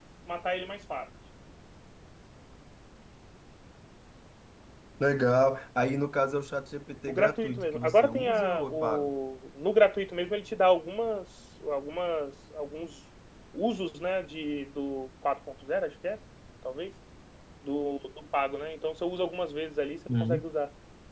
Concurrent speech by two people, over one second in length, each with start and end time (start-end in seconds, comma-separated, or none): 7.1-9.1